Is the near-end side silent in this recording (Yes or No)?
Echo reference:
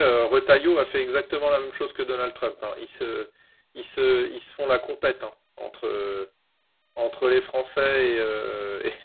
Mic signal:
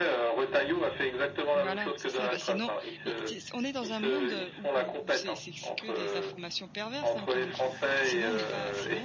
No